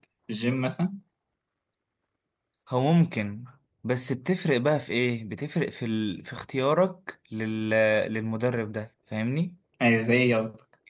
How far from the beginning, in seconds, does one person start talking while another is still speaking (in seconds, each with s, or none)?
none